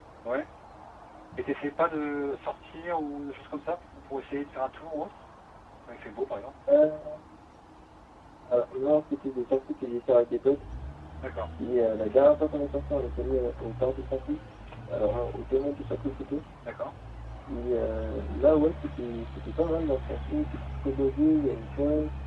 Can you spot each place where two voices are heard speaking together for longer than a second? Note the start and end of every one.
none

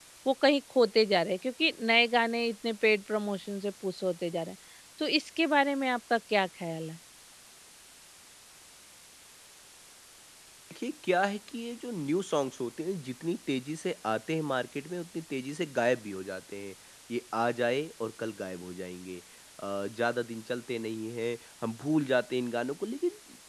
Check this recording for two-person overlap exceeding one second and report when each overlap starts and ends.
none

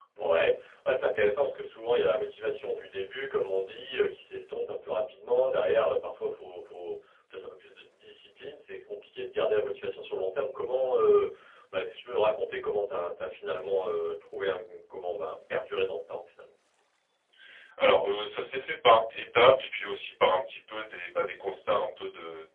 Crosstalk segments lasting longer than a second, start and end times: none

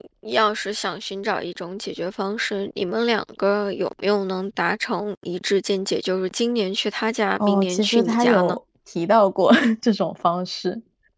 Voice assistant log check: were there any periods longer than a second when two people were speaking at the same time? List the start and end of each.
7.4-8.6

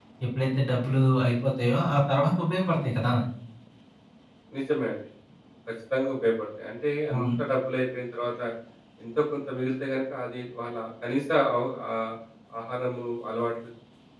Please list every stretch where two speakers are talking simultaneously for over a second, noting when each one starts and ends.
none

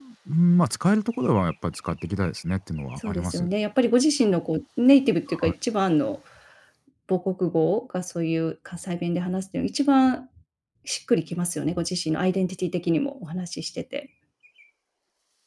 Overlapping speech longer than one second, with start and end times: none

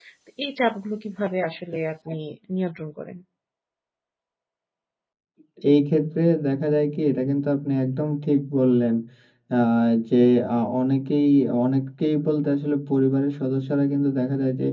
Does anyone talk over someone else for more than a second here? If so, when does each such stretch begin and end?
none

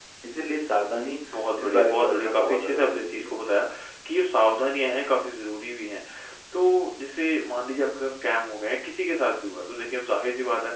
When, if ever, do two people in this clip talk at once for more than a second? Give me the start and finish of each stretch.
1.6-3.6

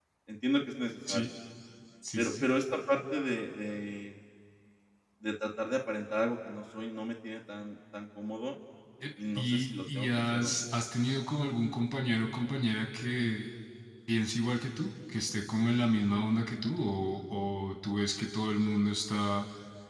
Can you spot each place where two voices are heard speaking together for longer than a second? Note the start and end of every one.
9.4-10.6

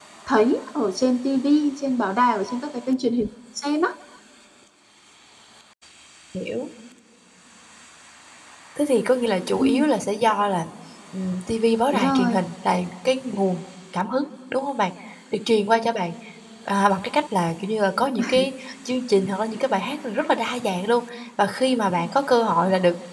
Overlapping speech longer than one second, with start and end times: none

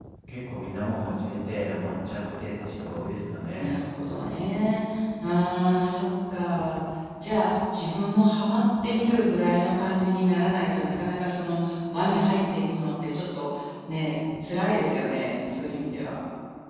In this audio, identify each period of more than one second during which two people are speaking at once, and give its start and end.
none

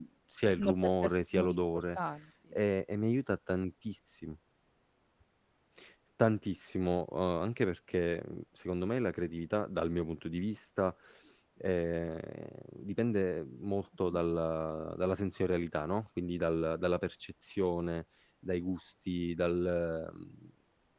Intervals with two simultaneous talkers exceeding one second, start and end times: 0.5-2.0

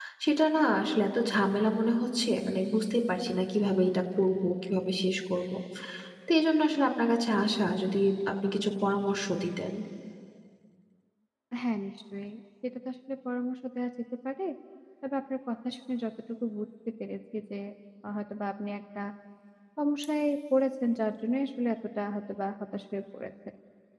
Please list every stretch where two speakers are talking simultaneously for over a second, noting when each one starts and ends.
none

